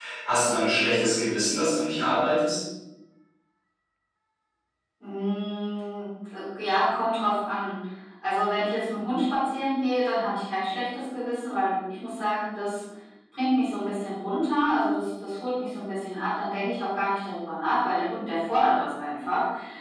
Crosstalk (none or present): none